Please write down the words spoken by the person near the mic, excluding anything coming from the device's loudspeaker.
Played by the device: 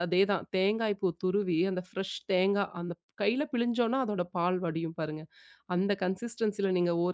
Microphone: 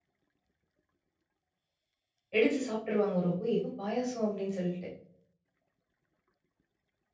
எடுத்து சாப்ட்டுருவாங்க. ஒரு "ஓ! ஏதோ பாயாசம்" அப்படின்னு சொல்லிட்டு.

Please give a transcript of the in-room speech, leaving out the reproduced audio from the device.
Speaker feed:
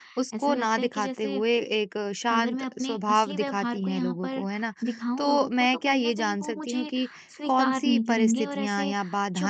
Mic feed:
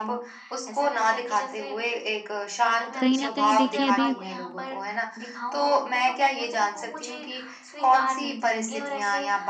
कहीं न कहीं देखिए अभी

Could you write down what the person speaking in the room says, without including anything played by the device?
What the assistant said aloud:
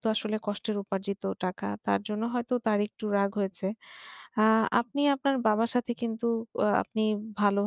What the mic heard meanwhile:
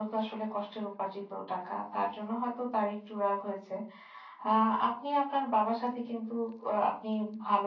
none

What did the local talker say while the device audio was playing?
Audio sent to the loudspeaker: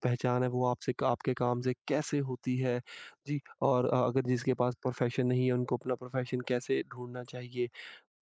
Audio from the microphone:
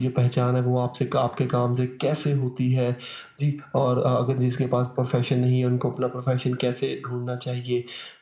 none

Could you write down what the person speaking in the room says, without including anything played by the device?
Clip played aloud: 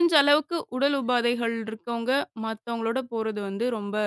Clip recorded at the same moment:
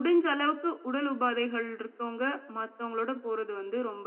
none

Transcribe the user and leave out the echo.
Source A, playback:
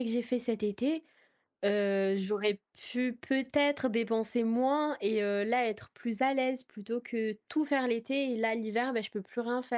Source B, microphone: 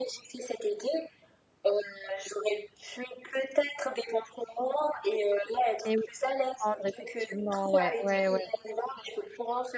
Et oui, comprendre effectivement, ouais, ouais, ouais.

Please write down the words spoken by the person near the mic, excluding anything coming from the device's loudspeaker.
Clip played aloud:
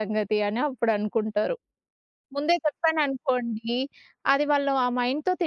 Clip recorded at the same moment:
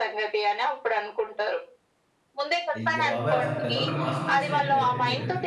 అయ్య బాబోయ్! అసలు పిల్లల్ని మోసం చేసినట్టే అయితే మీరు.

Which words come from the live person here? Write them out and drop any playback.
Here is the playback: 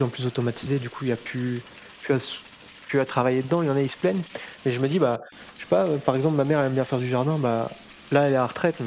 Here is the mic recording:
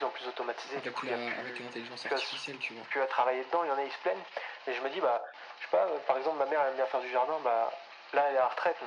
avec la avec l'intelligence artificielle, tu vois?

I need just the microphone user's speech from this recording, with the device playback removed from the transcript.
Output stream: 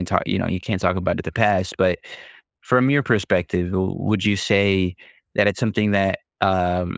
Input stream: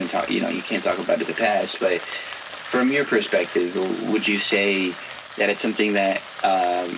none

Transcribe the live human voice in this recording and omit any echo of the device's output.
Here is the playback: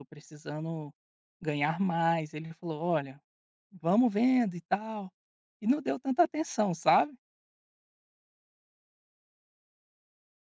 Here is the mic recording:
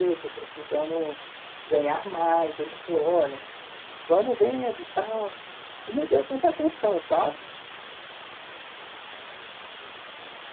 none

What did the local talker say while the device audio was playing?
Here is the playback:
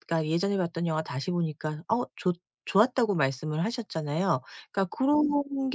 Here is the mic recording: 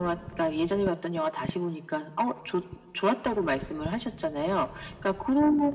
none

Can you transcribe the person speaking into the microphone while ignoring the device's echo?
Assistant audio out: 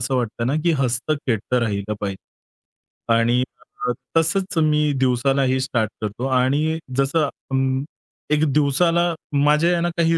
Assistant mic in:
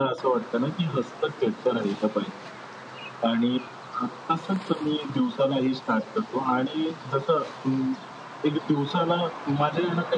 none

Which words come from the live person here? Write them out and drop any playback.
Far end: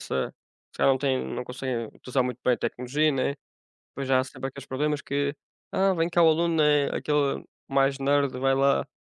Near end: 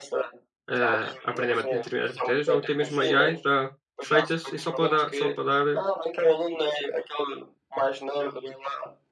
eh, aprender ma determinadas matérias ou até mesmo AI já feitas e só para dar só para dar eh,

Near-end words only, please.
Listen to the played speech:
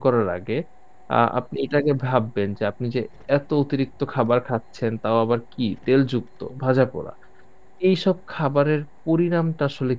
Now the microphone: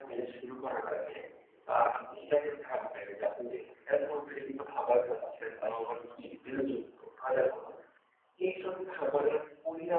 none

